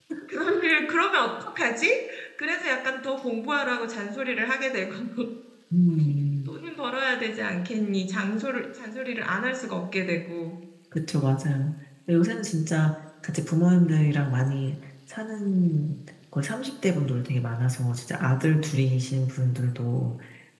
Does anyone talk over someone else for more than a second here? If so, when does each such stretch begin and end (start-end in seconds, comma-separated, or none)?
none